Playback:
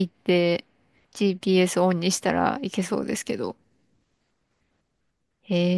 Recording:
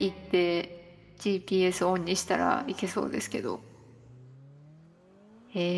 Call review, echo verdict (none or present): present